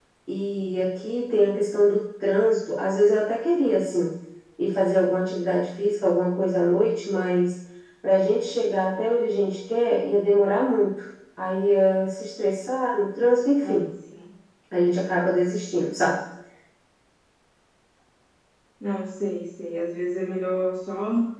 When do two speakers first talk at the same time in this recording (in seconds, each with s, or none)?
none